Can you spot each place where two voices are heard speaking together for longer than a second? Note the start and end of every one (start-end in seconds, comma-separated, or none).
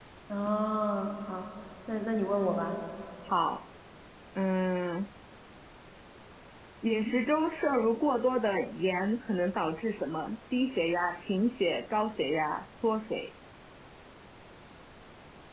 none